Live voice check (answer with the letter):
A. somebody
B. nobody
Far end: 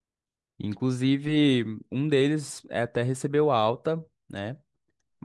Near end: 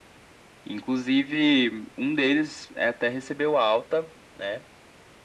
B